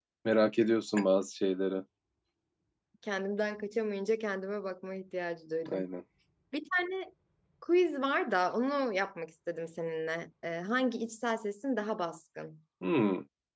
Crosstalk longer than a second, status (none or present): none